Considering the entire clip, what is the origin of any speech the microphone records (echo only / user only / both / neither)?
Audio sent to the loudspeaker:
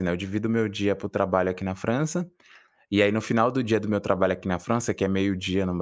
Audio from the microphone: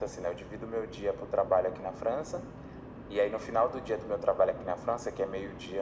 echo only